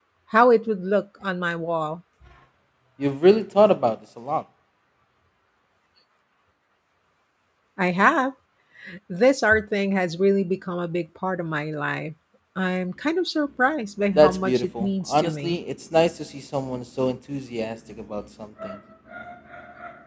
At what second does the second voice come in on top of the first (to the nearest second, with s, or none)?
14 s